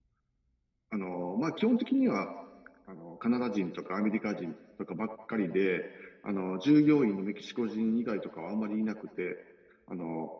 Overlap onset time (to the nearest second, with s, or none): none